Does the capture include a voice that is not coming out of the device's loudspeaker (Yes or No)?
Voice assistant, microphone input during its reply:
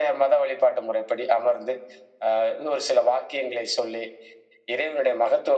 No